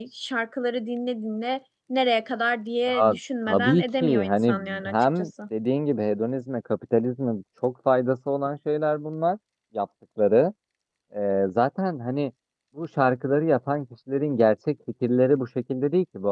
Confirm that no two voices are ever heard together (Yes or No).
No